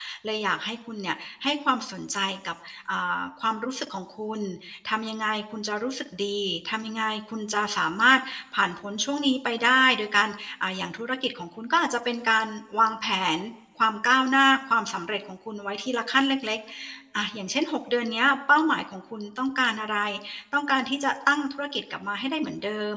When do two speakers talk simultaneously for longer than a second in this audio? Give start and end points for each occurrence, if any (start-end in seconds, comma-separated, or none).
none